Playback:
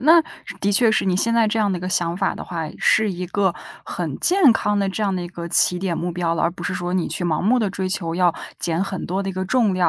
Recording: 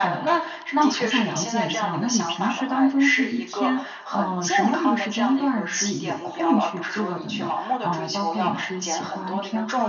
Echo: present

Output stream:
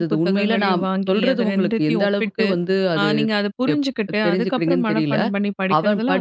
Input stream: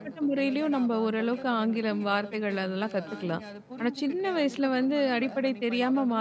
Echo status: present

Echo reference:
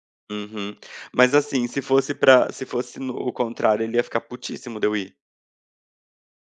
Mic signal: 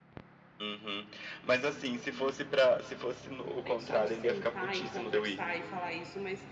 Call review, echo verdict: present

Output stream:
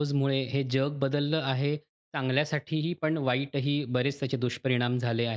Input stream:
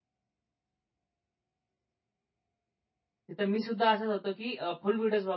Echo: none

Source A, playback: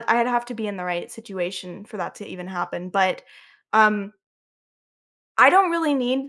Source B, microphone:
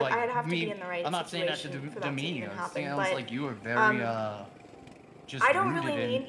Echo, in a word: present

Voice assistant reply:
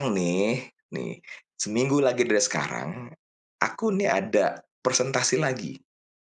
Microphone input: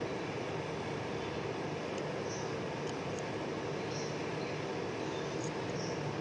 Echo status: none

